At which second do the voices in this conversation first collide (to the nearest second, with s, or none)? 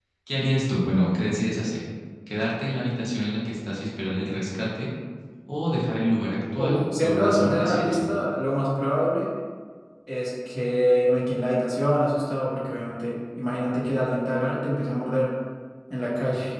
7 s